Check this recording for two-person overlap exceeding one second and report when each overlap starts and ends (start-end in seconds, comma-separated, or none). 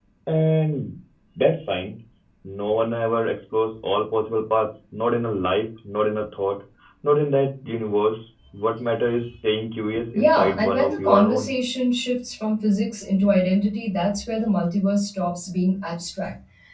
10.1-11.5